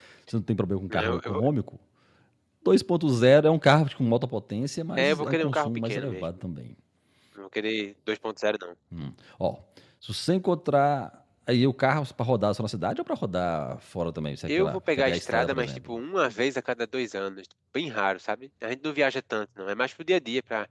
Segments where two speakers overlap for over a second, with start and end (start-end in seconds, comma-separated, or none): 5.0-6.2, 14.5-16.0